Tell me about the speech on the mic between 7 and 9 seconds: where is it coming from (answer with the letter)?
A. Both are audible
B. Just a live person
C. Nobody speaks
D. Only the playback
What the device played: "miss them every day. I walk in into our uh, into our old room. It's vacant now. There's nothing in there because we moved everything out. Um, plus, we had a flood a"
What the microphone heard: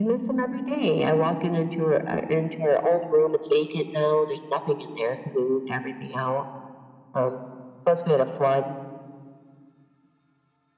D